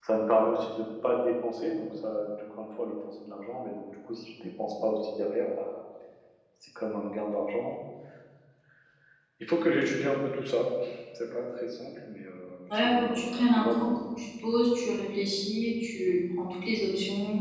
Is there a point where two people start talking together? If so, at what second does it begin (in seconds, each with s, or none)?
12.7 s